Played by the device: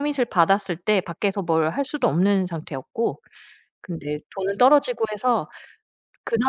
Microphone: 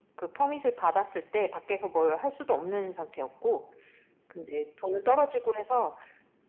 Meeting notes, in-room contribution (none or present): none